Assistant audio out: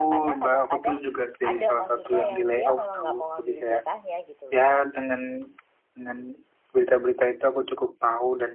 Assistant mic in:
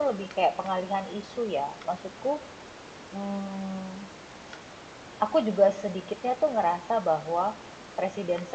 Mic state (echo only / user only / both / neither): user only